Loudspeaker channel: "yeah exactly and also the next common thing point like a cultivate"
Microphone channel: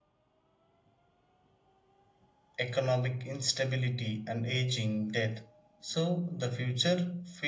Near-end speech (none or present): present